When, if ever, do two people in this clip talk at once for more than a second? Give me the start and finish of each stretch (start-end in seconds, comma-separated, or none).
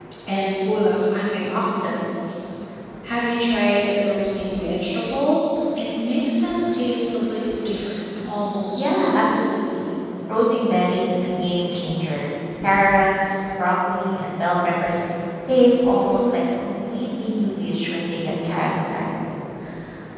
none